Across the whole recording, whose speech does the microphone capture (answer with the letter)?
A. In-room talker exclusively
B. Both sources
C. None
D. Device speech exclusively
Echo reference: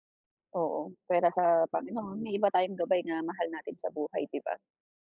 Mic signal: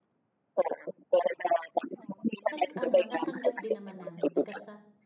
B